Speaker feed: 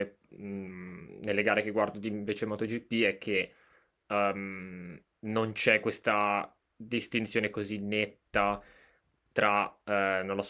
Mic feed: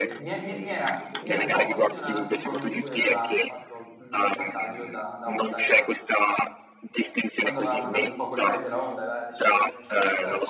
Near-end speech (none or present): present